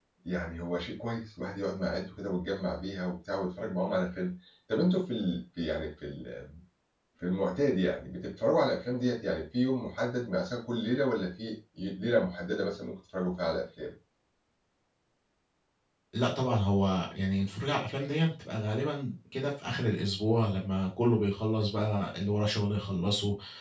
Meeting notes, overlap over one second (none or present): none